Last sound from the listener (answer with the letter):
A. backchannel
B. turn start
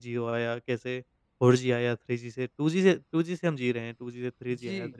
A